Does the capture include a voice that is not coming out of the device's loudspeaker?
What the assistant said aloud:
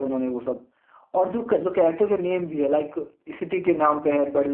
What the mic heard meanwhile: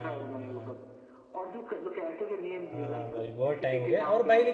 Yes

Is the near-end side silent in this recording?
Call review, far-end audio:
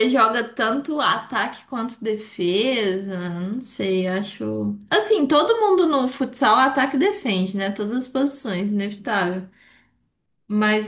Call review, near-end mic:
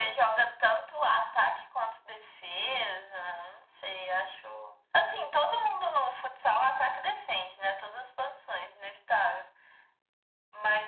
Yes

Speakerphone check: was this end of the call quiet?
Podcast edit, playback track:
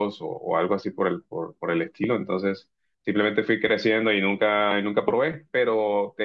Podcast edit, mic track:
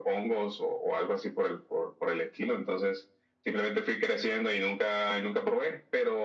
Yes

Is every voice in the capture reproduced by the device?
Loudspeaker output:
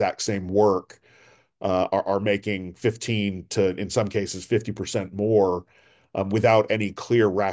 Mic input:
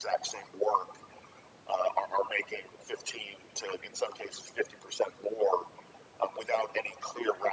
Yes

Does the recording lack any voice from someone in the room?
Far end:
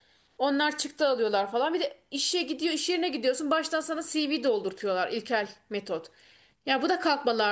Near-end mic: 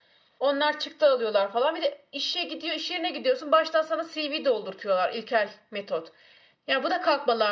Yes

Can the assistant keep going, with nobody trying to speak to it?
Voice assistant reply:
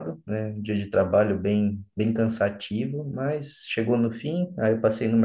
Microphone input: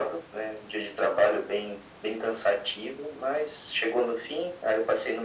Yes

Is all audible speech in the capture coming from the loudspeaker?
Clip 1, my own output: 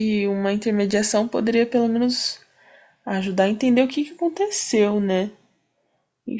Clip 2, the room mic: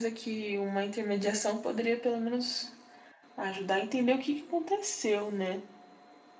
Yes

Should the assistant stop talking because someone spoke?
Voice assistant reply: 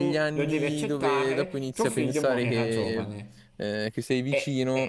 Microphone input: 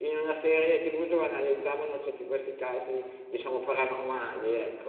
Yes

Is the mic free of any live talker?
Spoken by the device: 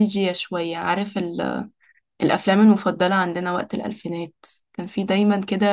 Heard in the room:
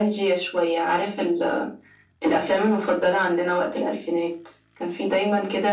Yes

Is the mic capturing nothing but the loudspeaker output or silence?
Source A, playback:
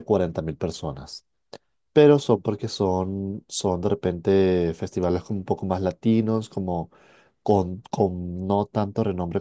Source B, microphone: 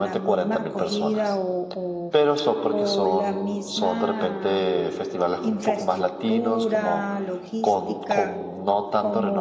No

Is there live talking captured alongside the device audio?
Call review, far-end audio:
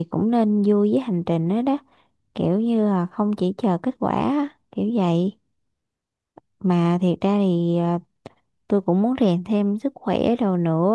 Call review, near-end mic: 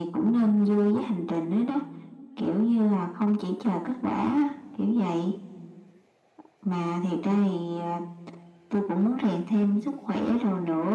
No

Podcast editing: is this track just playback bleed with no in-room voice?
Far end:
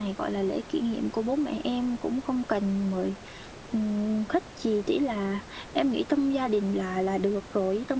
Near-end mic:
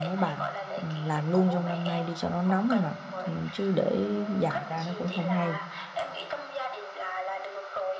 No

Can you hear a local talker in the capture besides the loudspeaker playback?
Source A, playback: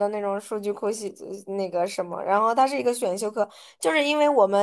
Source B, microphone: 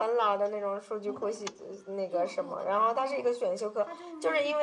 Yes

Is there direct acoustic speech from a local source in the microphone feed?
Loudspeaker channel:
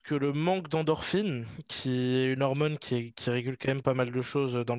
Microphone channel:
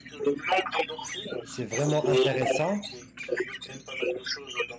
Yes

